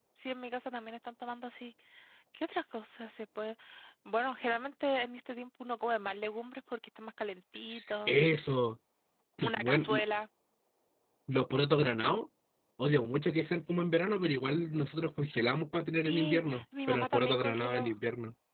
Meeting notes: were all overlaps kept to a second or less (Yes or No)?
No